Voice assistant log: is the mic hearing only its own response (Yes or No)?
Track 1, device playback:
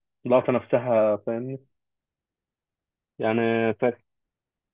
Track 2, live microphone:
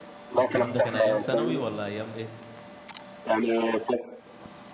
No